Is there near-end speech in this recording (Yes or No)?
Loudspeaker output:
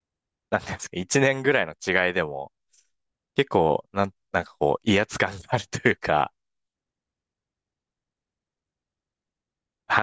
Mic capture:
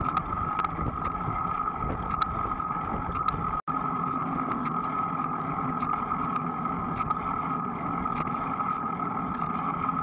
No